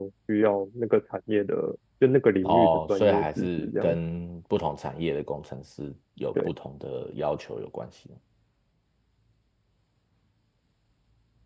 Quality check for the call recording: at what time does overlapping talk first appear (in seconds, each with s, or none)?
2.4 s